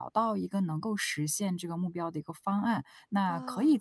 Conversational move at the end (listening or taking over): listening